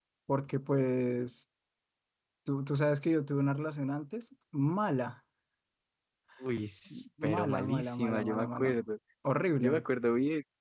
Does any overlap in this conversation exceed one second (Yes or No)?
Yes